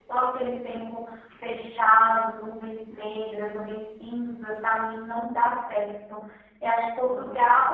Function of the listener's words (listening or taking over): listening